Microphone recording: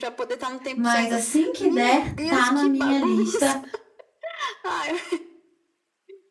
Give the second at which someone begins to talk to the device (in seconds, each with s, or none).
0.7 s